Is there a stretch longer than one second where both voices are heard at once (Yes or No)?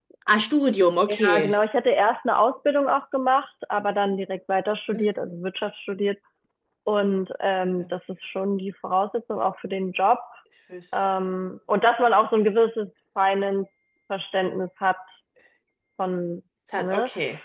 No